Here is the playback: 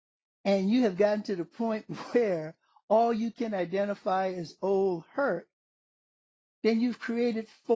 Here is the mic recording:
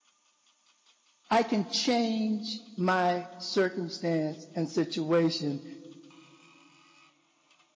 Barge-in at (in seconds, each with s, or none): 1.3 s